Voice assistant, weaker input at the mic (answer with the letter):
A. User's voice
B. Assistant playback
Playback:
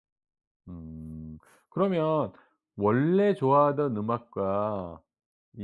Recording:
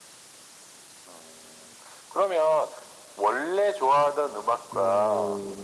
A